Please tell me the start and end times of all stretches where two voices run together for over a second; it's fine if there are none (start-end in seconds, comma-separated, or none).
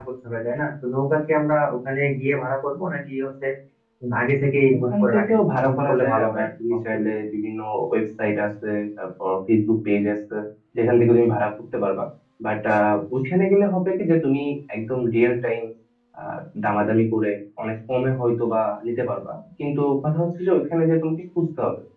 4.8-6.5